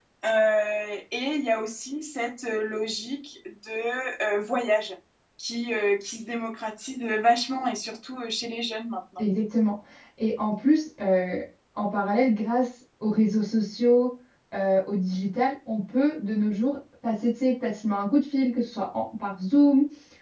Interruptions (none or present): none